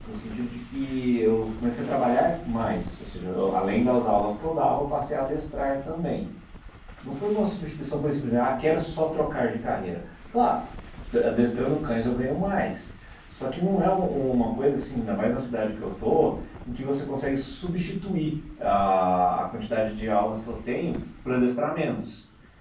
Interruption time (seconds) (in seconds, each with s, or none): none